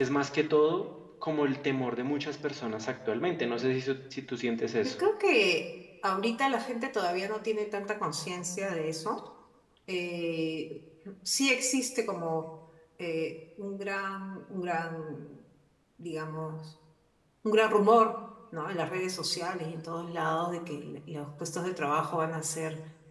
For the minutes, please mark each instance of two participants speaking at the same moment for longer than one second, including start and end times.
none

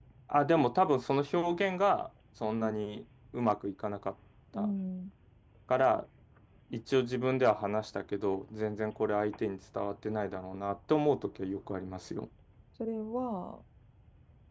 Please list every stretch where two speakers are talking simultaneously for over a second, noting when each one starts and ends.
none

